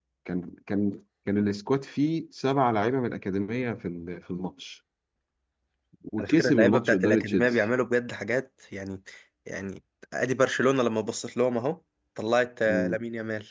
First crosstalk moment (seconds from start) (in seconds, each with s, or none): 6.2 s